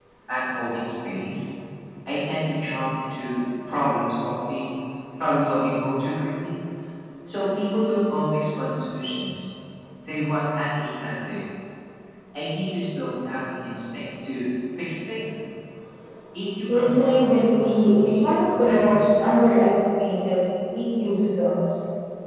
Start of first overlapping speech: 16.7 s

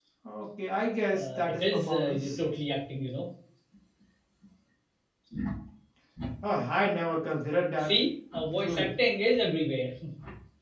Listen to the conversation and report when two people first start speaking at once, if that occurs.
1.1 s

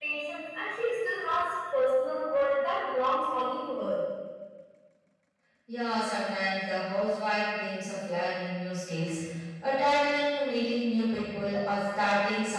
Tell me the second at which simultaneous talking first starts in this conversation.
none

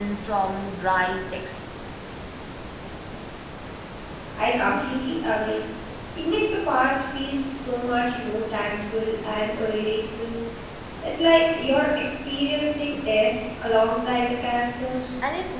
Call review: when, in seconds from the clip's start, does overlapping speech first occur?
none

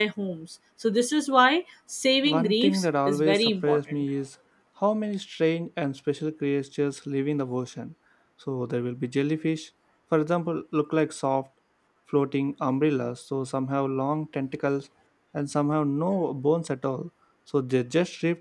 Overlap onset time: 2.2 s

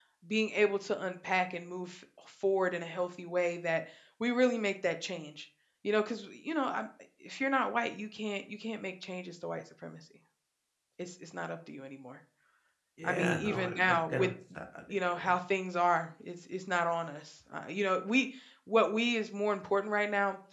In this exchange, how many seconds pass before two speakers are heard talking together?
13.0 s

